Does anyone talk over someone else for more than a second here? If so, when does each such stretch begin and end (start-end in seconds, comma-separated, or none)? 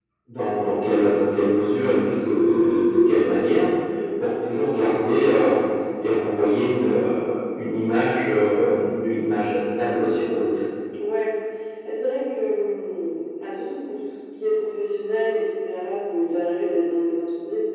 none